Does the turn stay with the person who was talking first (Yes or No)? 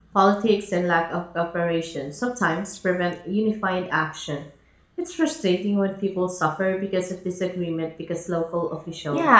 No